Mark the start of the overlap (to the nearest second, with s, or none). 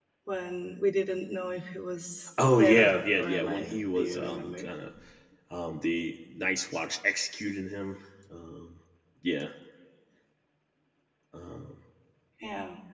2 s